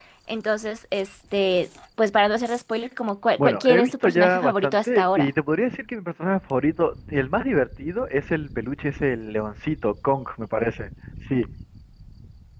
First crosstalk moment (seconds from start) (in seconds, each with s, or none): 3.4 s